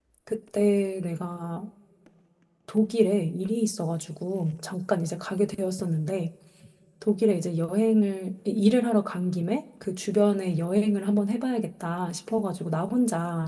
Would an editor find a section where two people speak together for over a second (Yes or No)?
No